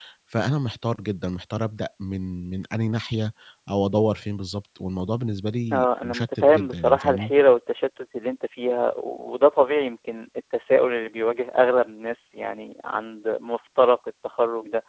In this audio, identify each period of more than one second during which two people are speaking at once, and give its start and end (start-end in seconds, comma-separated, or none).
5.7-7.3